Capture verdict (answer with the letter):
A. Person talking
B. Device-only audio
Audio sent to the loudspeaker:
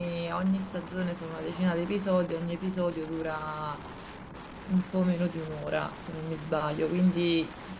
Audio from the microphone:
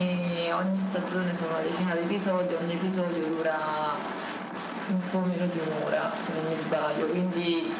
B